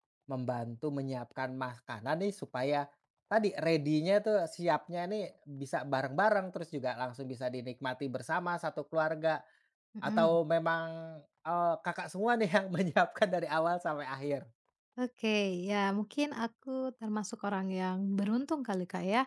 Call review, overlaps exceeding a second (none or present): none